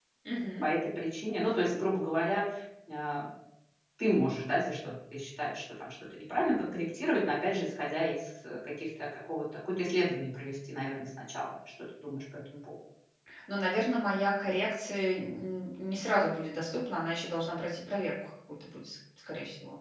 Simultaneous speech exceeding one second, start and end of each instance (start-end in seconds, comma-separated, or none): none